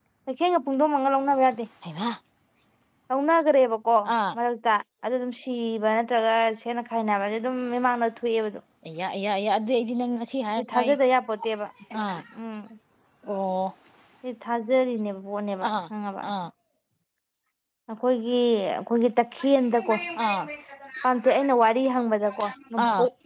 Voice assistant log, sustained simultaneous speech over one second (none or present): none